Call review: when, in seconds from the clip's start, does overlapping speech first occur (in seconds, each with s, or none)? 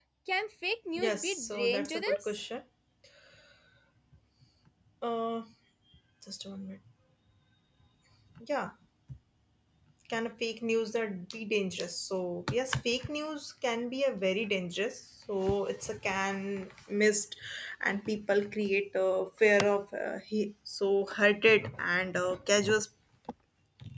1.0 s